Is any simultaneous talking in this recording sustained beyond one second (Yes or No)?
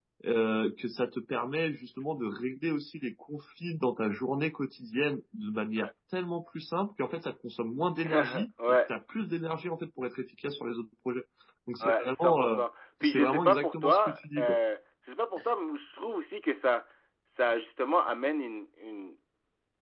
Yes